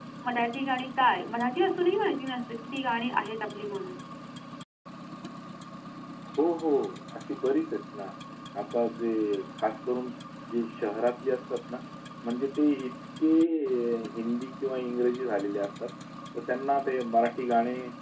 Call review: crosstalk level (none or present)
none